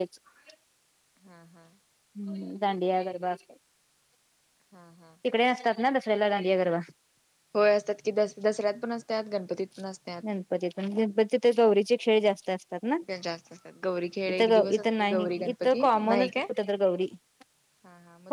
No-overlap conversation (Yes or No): No